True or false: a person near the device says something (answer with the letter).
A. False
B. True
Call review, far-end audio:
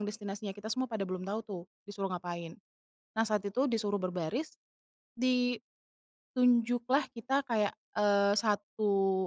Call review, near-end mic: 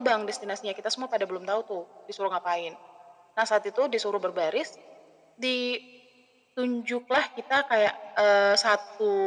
A